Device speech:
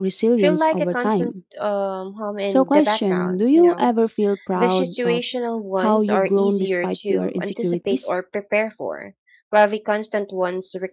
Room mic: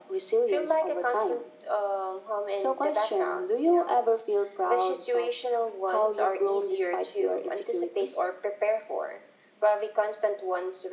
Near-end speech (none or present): none